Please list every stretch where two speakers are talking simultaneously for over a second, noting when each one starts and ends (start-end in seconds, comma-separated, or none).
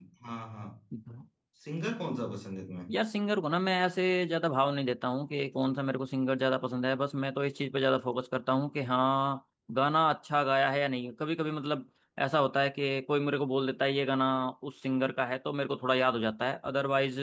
none